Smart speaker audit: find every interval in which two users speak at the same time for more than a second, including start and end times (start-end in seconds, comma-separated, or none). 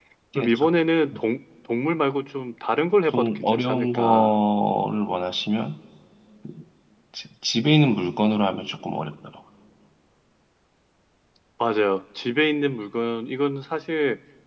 3.1-4.4